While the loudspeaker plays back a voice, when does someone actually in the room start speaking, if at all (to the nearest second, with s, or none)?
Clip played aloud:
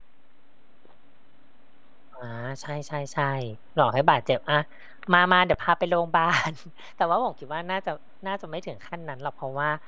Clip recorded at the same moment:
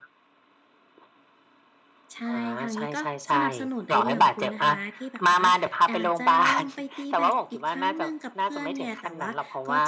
2 s